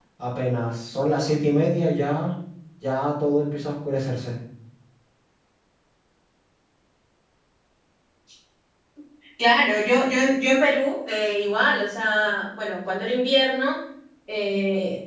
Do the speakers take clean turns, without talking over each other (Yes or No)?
Yes